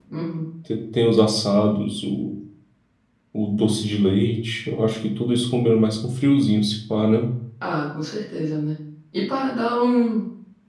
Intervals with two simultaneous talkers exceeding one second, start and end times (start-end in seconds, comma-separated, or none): none